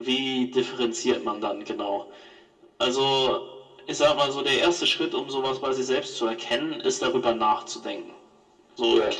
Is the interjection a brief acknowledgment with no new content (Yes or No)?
Yes